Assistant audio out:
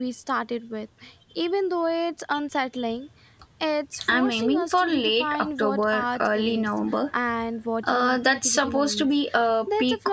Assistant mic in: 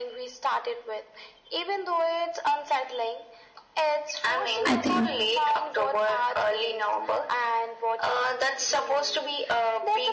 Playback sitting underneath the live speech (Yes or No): Yes